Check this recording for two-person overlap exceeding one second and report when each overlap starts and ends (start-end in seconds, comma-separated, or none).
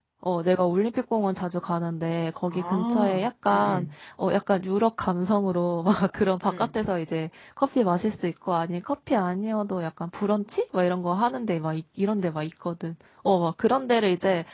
2.5-3.9